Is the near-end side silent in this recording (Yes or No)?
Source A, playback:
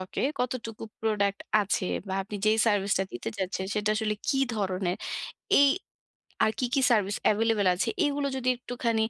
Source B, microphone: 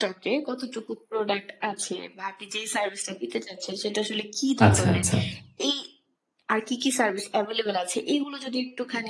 No